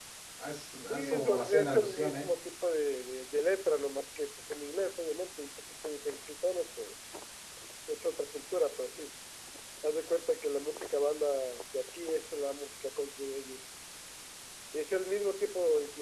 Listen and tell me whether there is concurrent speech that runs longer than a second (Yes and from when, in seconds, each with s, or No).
Yes, from 0.9 s